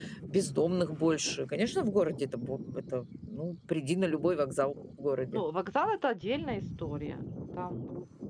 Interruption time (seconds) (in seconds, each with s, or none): none